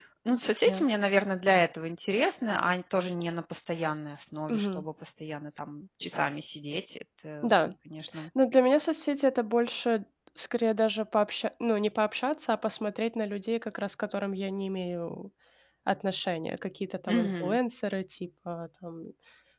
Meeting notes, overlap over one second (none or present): none